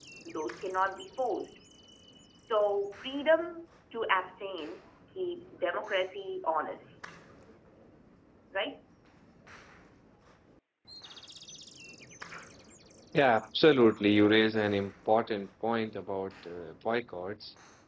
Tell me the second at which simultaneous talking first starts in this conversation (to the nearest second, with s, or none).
none